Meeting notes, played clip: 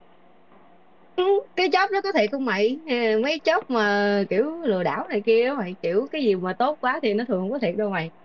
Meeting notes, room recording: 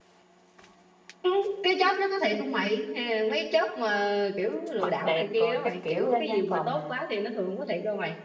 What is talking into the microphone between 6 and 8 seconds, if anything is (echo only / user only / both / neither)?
both